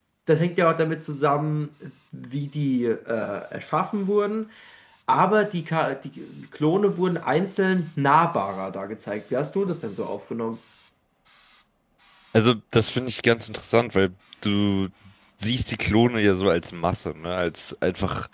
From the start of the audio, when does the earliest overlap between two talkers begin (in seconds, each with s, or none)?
none